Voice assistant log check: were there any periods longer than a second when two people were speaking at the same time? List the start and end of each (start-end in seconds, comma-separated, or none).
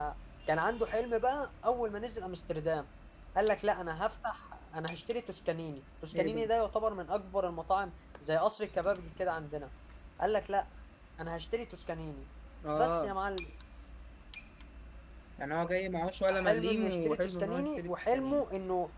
16.3-18.4